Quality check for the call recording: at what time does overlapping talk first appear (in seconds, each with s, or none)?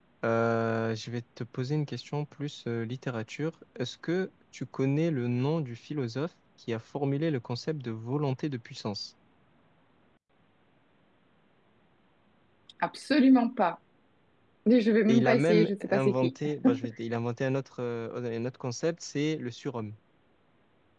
15.1 s